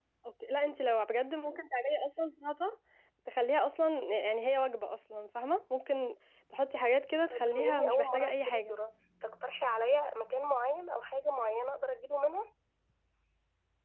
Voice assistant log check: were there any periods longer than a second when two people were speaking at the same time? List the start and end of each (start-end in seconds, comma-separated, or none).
7.3-8.7